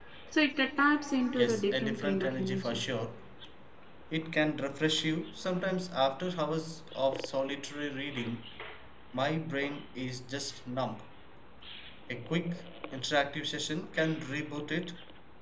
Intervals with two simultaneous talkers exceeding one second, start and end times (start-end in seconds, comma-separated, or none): 1.4-2.8